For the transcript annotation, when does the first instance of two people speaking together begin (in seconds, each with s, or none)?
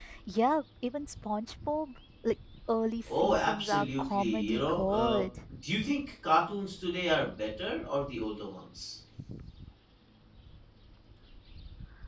3.1 s